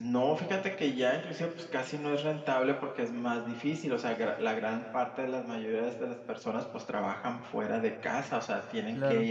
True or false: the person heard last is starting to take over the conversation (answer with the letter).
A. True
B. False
B